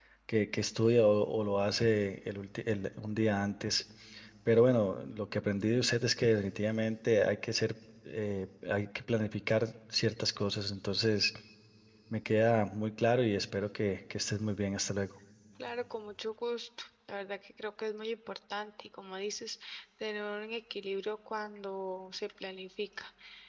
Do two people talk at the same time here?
No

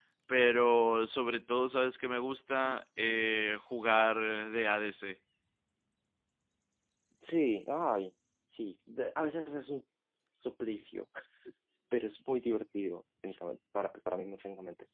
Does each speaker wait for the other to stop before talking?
Yes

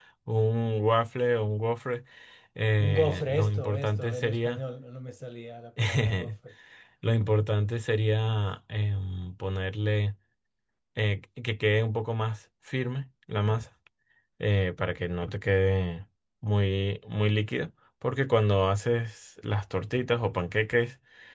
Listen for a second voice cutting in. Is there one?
Yes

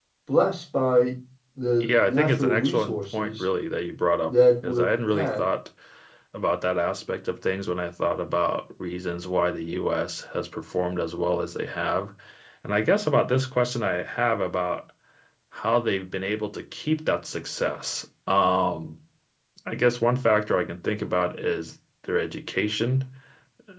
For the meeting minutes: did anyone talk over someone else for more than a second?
Yes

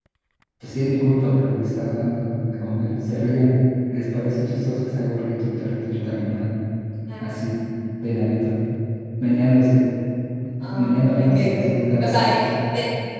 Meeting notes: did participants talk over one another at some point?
Yes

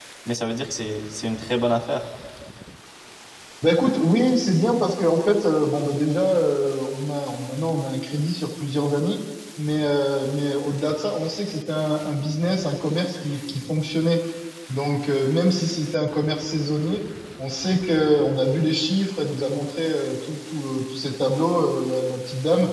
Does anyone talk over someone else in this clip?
No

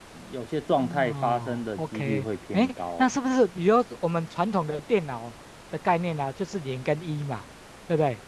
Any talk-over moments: Yes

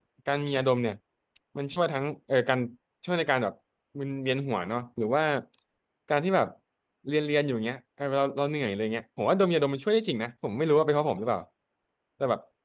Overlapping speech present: No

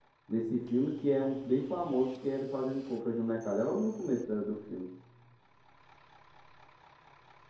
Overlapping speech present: No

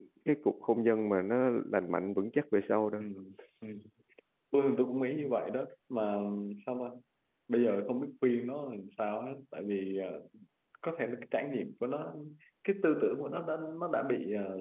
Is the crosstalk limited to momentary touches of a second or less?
Yes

